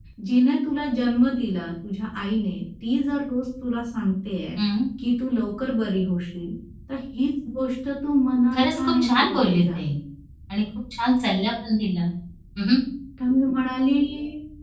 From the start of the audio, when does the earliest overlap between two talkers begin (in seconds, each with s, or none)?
8.5 s